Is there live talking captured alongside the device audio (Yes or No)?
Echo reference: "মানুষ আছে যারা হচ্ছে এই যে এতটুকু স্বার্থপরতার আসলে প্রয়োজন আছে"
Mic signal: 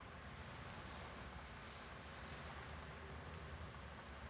No